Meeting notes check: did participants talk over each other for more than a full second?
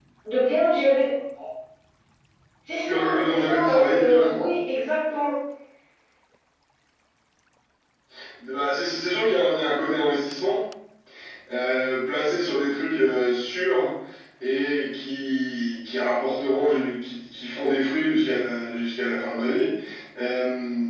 Yes, from 2.9 s

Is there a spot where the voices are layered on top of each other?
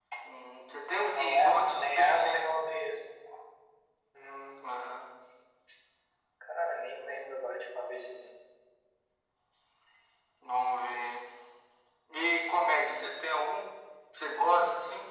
Yes, from 1.1 s

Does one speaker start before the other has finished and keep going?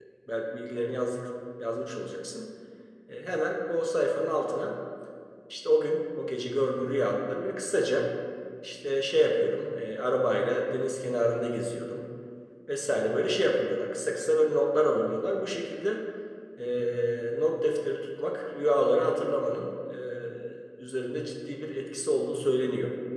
No

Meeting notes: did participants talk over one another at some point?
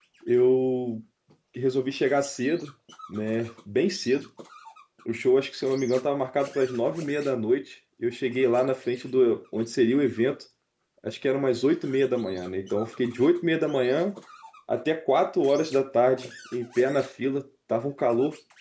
No

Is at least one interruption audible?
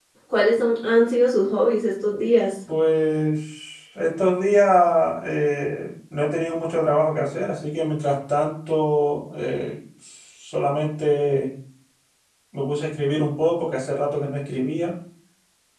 No

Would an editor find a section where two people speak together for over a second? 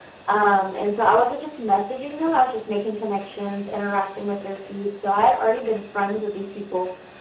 No

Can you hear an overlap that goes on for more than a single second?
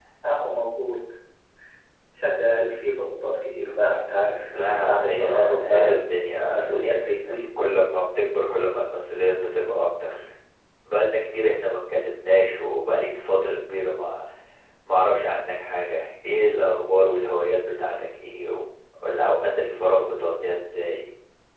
Yes, from 4.5 s

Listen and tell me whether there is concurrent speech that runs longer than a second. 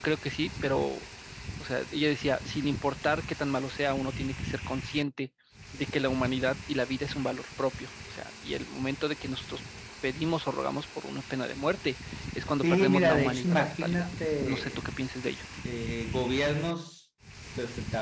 Yes, from 12.6 s

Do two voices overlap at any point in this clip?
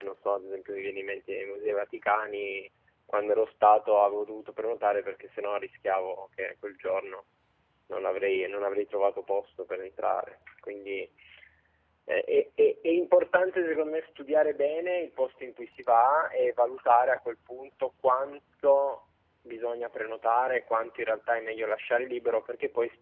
No

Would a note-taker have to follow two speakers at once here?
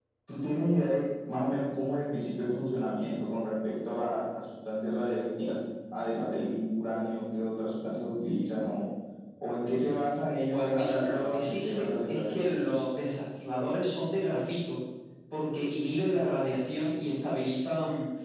Yes, from 10.5 s

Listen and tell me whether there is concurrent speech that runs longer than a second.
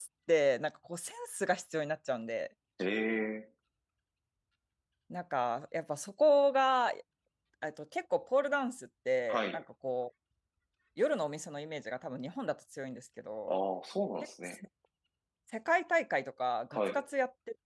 No

